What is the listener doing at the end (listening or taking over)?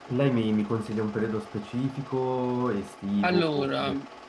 listening